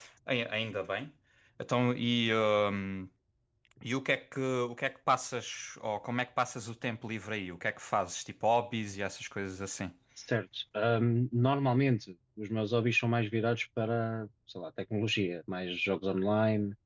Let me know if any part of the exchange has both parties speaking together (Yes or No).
No